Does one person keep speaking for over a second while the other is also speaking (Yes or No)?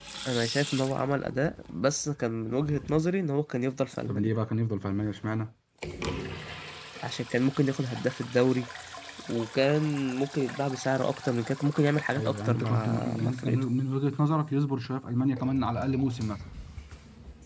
Yes